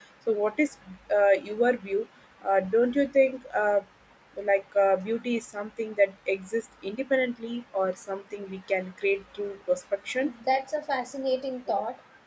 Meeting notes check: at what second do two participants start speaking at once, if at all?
none

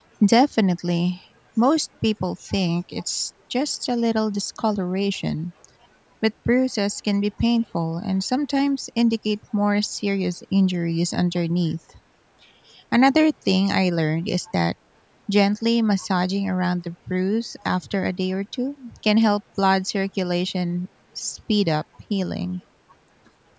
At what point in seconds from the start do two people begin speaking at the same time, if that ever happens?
none

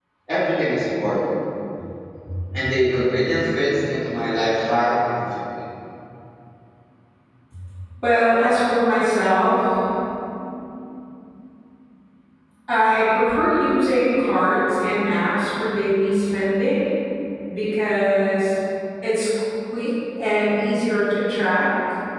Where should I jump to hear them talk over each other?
none

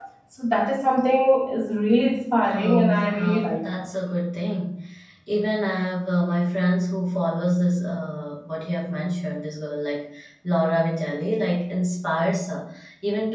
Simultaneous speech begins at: 2.5 s

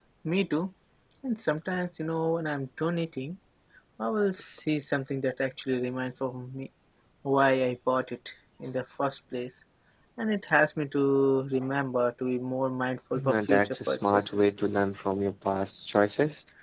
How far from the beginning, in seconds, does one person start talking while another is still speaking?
13.1 s

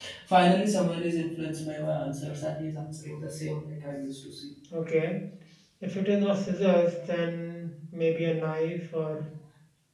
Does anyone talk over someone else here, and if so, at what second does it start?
none

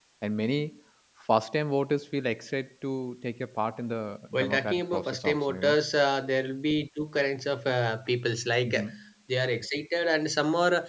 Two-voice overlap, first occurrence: 4.4 s

